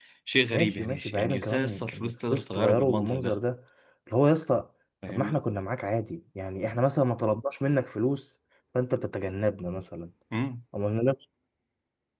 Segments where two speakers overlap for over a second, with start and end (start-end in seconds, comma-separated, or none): 0.5-3.3